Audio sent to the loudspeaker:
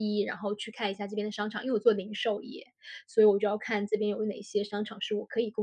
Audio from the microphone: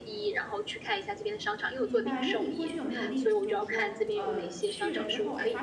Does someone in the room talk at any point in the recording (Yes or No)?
Yes